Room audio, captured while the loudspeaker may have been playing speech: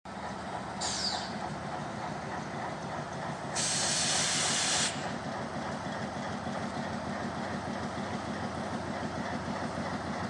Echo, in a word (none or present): none